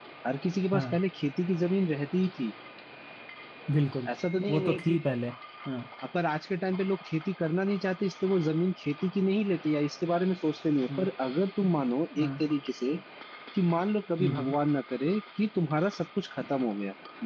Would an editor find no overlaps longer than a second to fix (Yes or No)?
Yes